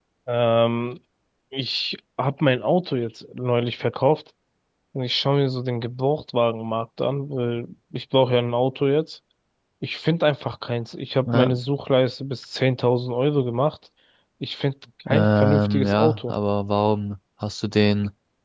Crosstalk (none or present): present